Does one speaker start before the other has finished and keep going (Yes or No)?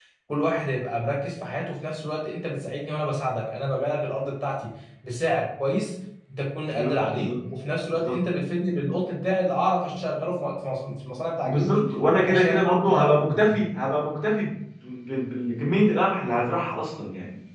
Yes